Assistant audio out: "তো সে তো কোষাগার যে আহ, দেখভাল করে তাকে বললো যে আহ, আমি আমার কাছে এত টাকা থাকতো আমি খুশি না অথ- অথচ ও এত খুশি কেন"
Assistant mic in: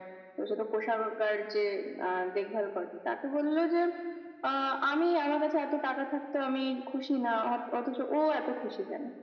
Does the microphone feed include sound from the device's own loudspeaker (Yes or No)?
Yes